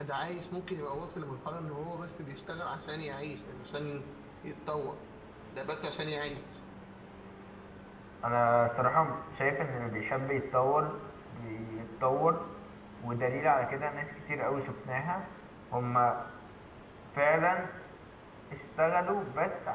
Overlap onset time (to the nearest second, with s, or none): none